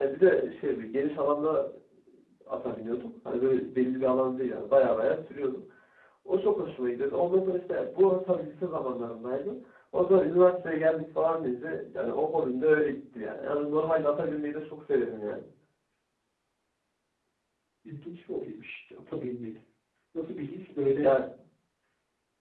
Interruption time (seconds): none

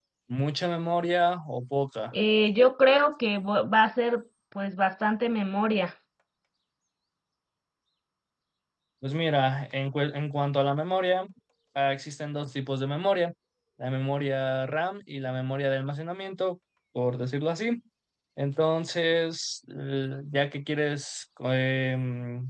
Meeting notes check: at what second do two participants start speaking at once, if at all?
none

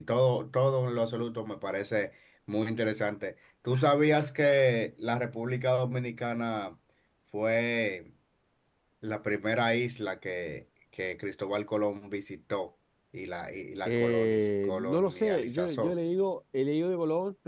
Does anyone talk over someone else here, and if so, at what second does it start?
14 s

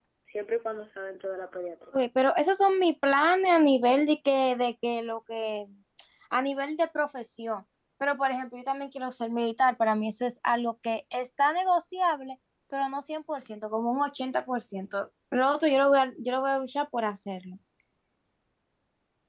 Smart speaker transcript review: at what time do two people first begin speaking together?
none

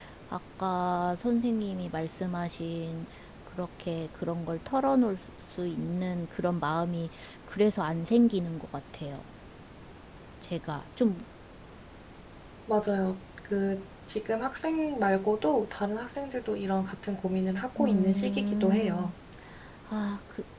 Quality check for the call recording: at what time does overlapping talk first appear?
18 s

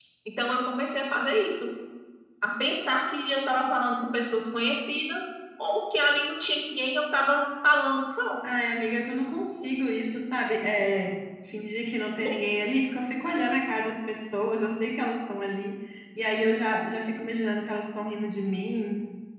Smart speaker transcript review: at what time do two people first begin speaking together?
none

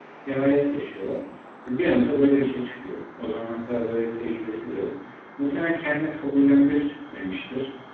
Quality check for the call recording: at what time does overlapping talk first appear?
none

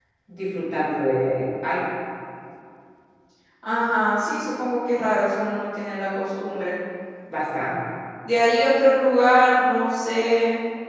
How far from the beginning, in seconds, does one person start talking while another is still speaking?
none

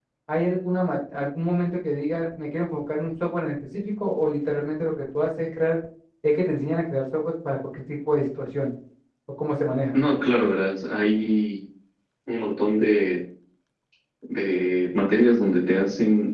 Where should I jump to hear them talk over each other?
none

